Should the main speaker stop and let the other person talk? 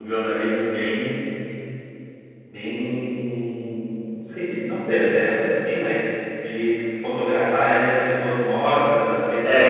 Yes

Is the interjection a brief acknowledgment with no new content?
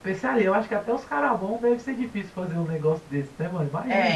No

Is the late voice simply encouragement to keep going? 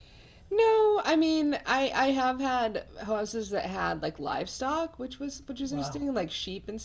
Yes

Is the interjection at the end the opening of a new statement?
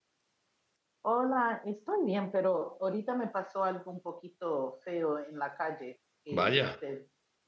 No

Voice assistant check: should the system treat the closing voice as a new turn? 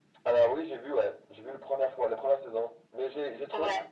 No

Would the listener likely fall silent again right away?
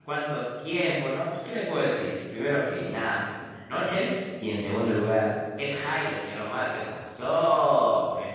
No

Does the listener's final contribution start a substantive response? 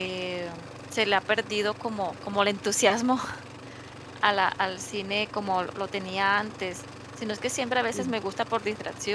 No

